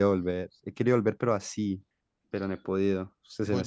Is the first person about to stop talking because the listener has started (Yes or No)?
Yes